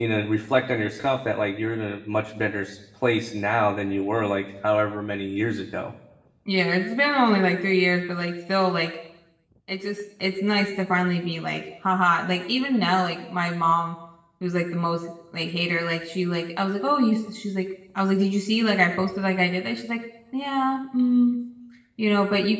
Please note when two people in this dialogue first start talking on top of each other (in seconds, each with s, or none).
none